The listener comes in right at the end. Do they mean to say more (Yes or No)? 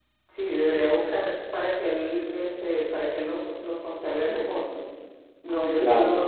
No